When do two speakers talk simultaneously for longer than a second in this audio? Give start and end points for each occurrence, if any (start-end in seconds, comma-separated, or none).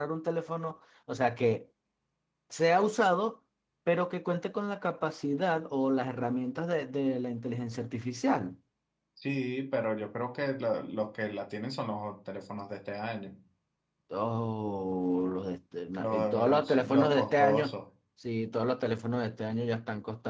16.0-17.8